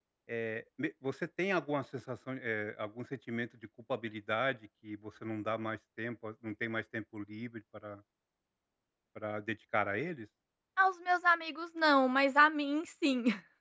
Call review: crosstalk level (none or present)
none